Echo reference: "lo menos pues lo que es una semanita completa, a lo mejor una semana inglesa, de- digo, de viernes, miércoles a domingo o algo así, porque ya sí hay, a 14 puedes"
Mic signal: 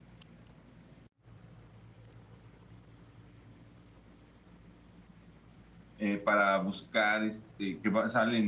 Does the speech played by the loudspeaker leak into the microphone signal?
No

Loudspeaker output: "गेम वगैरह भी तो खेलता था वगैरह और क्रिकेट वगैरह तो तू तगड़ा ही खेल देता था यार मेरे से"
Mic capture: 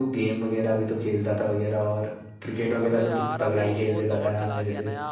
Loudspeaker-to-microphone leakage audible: Yes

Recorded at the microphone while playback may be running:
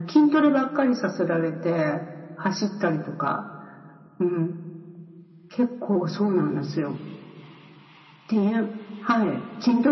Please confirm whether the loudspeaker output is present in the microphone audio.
Yes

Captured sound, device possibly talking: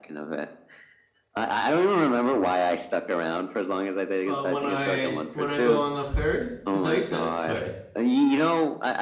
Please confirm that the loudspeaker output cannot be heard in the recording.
No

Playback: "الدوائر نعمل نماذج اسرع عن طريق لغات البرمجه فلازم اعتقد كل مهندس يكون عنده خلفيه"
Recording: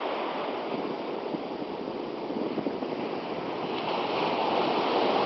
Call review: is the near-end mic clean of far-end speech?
Yes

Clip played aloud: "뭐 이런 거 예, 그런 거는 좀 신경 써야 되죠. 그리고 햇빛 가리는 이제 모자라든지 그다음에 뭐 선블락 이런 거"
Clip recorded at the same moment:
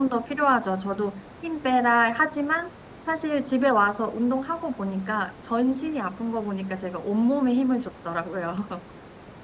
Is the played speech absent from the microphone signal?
Yes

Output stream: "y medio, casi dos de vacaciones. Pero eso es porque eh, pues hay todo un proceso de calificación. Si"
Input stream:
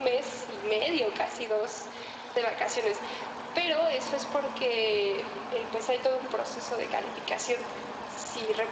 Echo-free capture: No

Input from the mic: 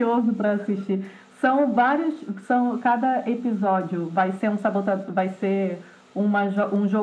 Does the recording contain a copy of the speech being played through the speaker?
Yes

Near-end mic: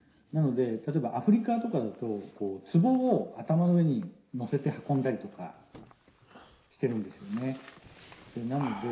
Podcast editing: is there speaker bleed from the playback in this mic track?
Yes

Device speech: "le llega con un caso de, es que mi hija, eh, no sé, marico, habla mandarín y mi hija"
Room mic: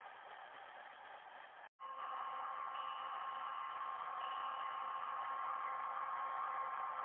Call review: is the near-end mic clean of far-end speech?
Yes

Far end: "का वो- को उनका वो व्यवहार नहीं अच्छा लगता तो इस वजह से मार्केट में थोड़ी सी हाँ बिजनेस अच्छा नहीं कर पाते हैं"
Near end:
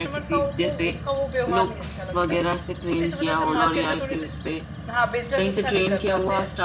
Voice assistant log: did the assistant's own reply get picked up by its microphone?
Yes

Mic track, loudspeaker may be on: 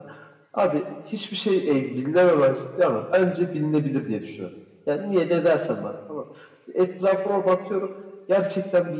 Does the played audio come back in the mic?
Yes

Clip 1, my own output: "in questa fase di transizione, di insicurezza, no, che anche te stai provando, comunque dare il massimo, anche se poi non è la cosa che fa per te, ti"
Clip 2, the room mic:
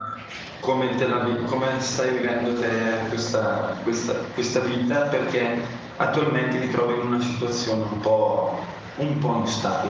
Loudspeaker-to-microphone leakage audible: No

